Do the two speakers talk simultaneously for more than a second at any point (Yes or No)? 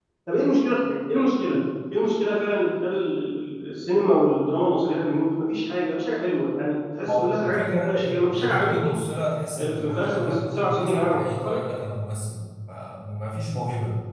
Yes